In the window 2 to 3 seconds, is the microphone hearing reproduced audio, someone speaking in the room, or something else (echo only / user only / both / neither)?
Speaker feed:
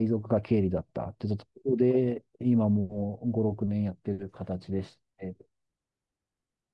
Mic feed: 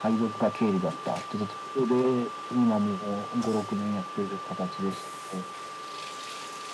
echo only